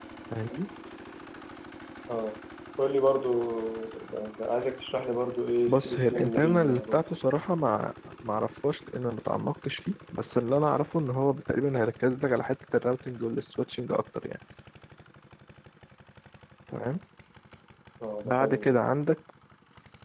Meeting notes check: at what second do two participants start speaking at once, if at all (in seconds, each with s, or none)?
5.7 s